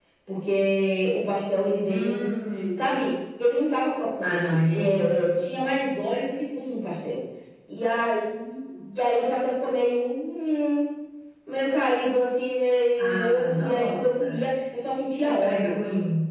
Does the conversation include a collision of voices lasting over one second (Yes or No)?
Yes